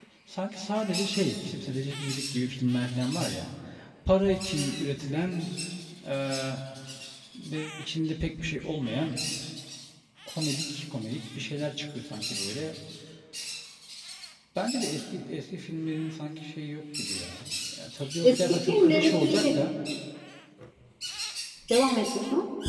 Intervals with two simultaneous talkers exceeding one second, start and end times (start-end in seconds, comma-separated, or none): 18.2-19.5